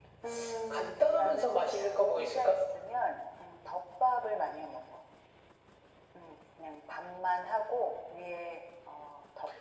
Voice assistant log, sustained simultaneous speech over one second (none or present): present